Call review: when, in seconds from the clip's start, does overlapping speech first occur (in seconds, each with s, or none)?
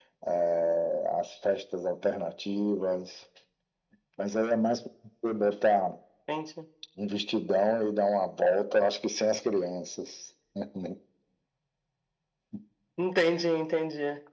none